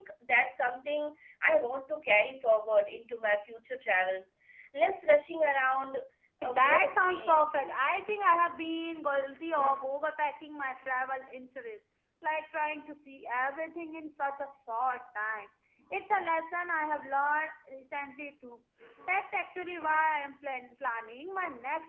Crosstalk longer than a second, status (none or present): present